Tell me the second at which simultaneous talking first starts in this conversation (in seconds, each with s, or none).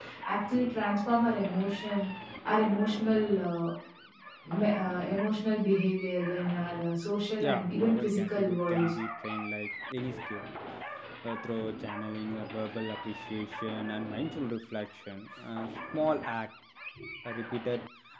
7.4 s